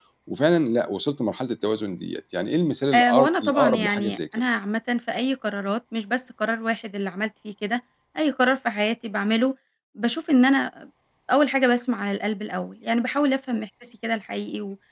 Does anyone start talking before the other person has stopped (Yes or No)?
Yes